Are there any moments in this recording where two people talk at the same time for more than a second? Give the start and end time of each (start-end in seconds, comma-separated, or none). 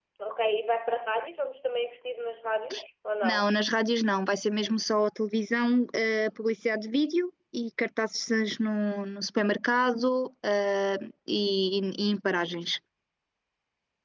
none